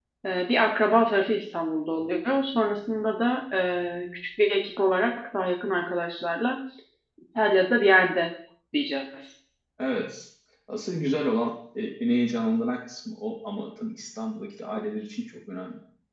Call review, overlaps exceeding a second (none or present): none